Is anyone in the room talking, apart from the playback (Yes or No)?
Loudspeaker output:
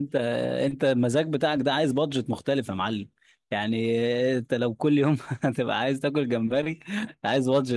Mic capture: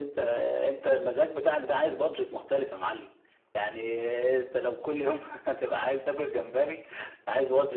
No